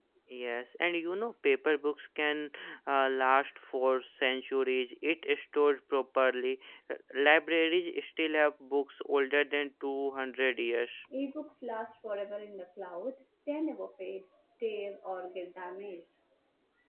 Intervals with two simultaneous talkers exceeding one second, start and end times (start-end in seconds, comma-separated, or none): none